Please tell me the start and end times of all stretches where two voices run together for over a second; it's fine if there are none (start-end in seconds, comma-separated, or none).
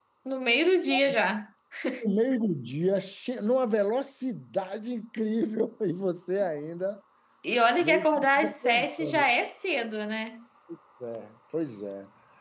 7.8-9.3